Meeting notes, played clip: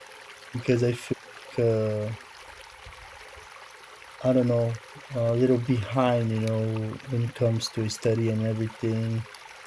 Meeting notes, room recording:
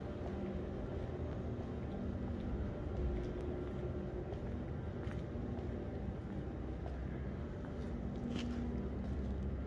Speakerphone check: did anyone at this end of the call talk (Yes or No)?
No